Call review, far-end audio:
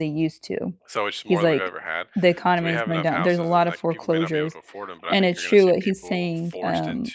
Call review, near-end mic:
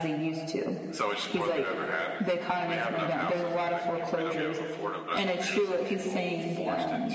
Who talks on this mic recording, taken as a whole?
echo only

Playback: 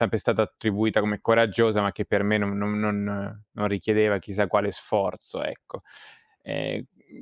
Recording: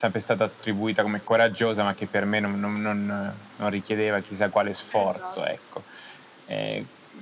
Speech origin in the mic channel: both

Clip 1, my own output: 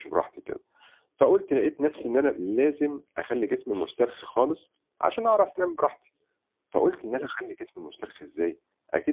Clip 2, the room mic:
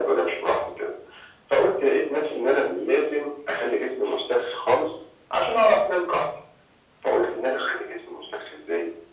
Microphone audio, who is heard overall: echo only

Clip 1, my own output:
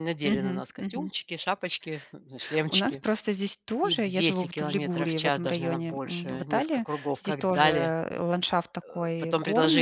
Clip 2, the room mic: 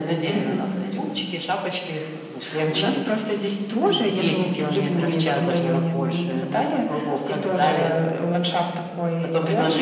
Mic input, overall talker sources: echo only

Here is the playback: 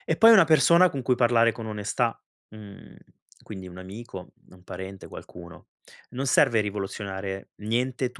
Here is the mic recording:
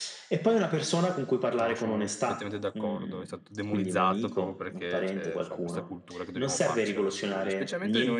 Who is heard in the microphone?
both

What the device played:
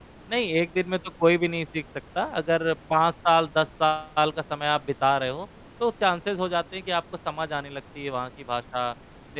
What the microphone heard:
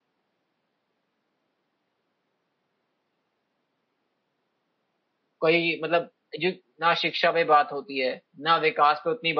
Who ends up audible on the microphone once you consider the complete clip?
user only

